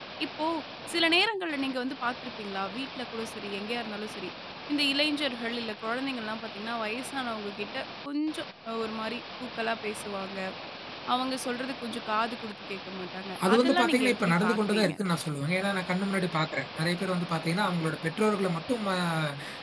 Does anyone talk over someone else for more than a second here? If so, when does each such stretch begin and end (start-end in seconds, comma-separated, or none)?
13.5-14.9